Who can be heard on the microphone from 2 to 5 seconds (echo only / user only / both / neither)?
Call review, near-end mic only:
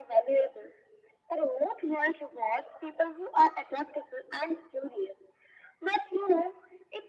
echo only